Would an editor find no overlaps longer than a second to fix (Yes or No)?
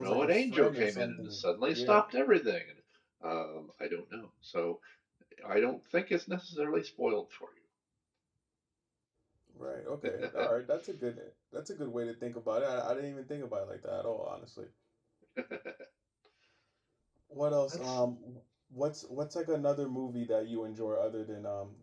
No